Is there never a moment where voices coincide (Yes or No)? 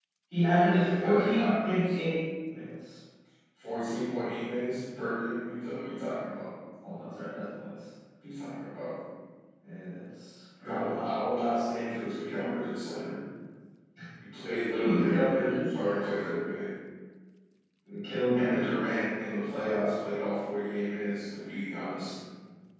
No